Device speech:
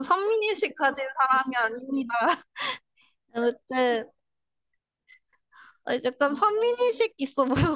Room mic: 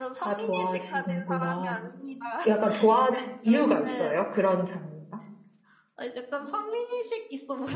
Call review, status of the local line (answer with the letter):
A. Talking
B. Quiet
A